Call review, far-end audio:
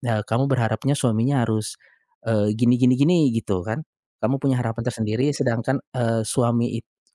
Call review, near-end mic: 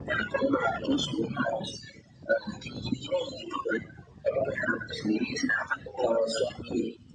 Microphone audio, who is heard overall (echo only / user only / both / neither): echo only